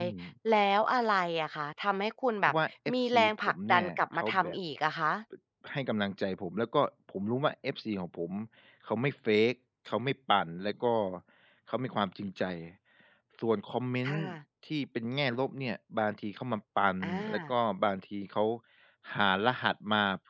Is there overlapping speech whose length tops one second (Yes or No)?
Yes